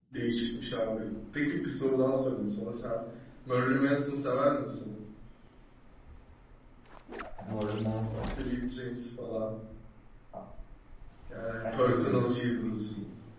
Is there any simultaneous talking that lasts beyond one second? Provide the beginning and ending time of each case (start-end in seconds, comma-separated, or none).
none